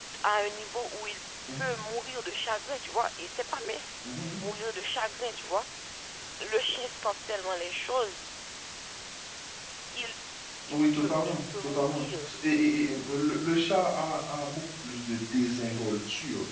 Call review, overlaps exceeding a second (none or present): present